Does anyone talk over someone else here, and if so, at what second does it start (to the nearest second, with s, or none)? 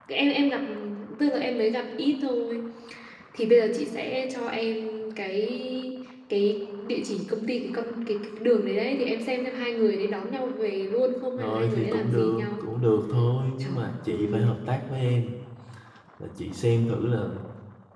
11 s